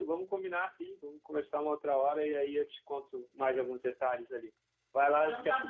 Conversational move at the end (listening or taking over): taking over